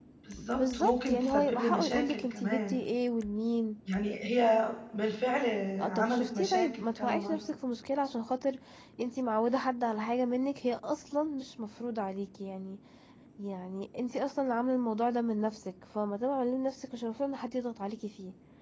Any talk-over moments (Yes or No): Yes